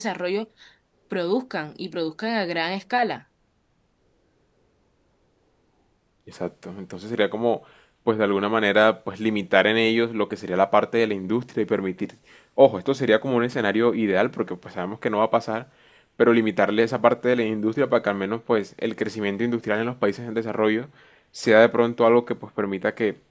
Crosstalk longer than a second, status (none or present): none